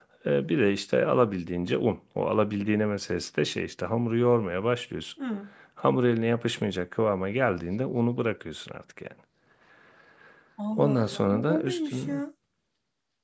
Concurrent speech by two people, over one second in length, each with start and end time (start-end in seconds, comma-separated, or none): 10.8-12.1